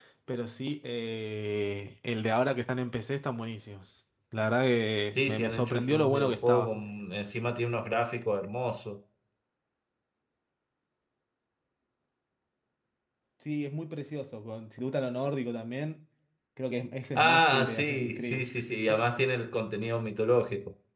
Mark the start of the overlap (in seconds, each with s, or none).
5.1 s